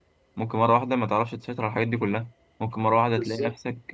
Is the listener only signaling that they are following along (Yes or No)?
Yes